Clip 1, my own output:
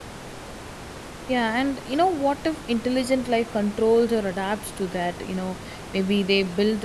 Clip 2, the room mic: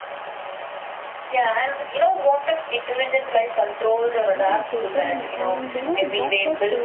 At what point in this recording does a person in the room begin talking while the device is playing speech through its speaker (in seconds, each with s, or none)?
4.3 s